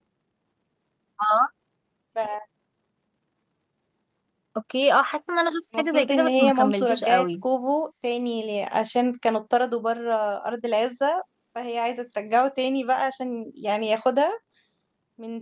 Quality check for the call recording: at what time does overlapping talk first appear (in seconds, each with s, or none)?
5.7 s